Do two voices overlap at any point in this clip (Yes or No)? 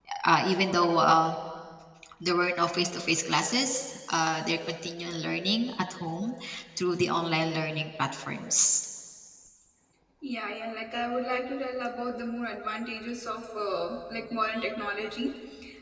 No